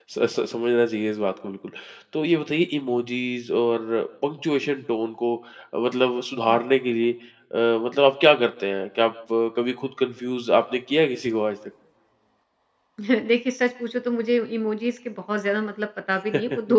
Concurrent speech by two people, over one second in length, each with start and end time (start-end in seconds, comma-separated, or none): none